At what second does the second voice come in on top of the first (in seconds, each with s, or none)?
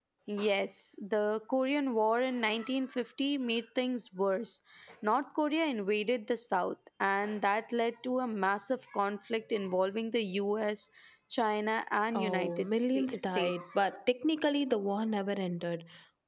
12.1 s